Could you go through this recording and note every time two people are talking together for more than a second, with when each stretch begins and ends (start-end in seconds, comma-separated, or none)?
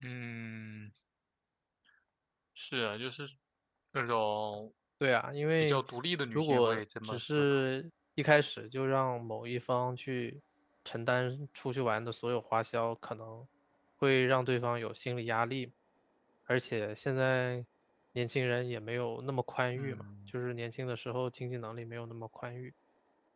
6.4-7.6